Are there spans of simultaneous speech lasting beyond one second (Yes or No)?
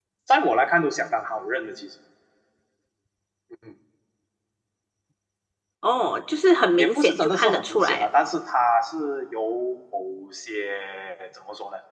Yes